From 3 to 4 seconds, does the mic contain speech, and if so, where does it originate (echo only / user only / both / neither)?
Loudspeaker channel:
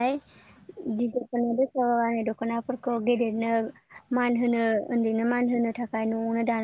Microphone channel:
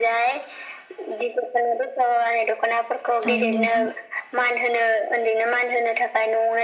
both